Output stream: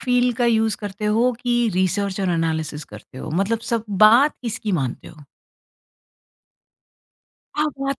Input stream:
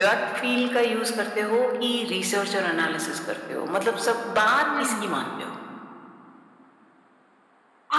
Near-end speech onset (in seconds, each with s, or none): 4.6 s